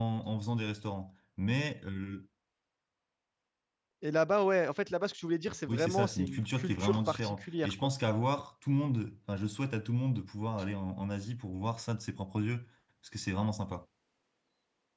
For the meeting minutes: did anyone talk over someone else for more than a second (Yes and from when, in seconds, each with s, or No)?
Yes, from 5.7 s